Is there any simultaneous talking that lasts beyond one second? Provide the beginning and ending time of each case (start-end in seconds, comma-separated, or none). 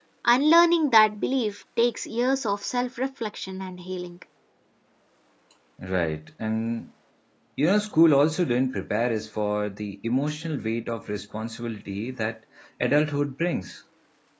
none